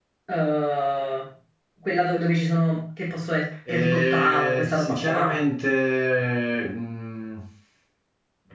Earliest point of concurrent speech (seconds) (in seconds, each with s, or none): 3.7 s